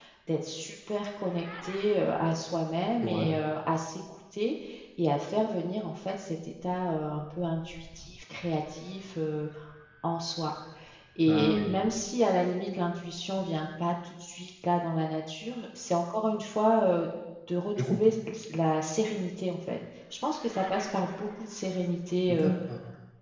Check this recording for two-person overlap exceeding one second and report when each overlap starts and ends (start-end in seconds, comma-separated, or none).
none